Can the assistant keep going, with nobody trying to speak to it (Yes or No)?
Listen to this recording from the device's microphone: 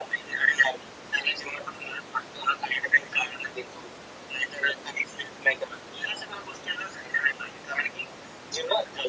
Yes